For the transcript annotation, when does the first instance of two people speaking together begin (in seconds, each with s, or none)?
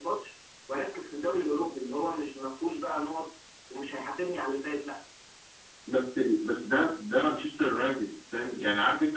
none